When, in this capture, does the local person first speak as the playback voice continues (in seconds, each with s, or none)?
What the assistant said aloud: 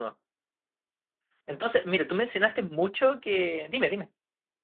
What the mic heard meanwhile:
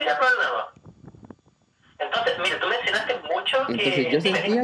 3.7 s